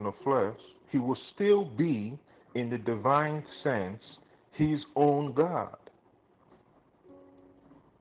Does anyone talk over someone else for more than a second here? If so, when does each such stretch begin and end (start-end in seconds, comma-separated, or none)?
none